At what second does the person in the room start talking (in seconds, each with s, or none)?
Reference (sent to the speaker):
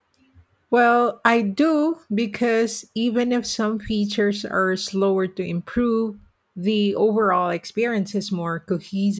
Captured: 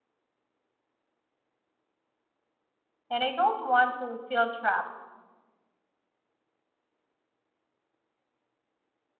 3.1 s